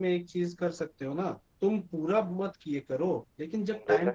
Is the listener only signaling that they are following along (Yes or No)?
Yes